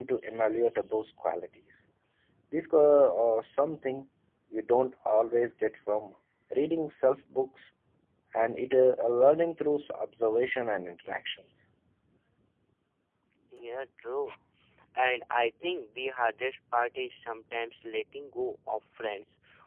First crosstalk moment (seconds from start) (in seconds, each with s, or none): none